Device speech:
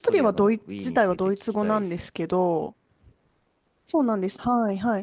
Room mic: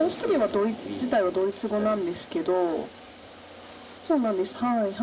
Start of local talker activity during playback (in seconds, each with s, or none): none